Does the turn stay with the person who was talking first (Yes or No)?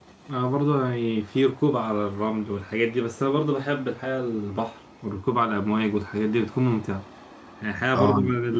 Yes